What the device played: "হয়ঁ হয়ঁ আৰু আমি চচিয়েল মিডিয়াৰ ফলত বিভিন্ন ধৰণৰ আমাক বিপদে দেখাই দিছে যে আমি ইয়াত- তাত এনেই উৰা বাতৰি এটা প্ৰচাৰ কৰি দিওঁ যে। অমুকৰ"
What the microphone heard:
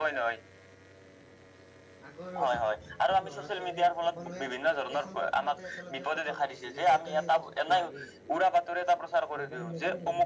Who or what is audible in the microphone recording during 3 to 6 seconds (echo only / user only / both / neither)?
both